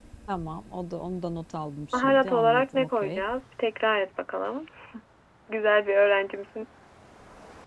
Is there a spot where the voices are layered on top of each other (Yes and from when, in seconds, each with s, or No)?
Yes, from 1.9 s